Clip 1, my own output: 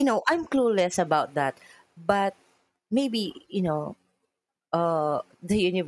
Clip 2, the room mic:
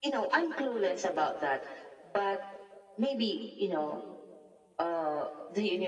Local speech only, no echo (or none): none